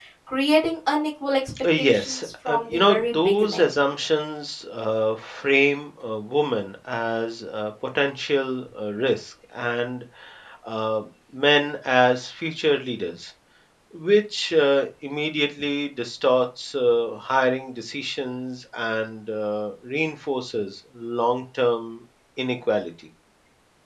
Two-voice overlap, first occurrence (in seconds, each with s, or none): 1.6 s